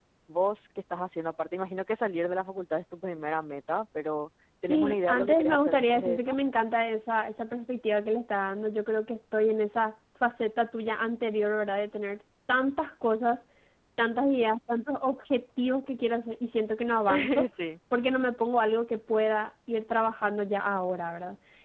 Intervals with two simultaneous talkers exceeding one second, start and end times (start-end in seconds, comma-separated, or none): 4.7-6.4